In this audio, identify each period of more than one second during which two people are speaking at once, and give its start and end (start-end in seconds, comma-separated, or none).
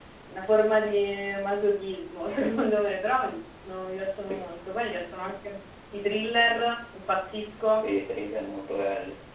none